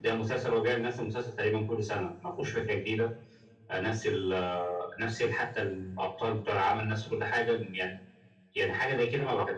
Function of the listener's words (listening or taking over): taking over